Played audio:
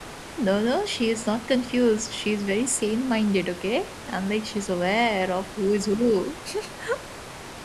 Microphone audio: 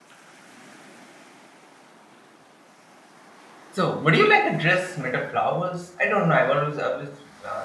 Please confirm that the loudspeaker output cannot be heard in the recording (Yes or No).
Yes